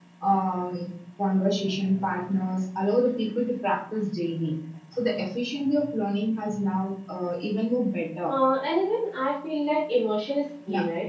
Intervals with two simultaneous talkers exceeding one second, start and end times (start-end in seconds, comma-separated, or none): none